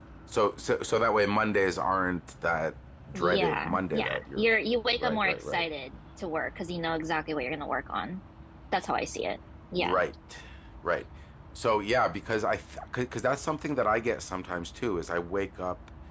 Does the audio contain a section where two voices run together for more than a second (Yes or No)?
Yes